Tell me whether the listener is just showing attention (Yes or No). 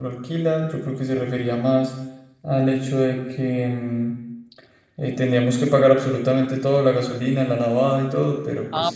No